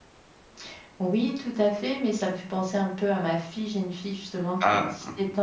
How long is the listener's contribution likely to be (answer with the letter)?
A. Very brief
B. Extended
A